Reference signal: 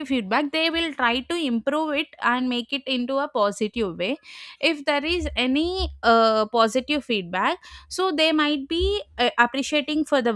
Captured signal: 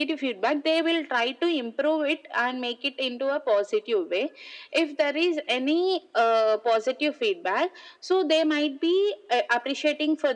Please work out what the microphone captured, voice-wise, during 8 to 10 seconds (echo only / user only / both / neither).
echo only